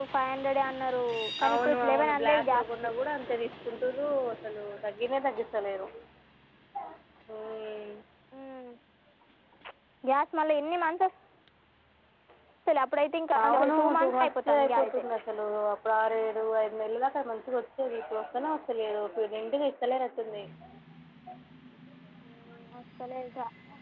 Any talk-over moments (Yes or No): Yes